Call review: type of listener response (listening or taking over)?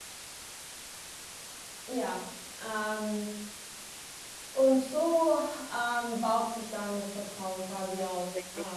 taking over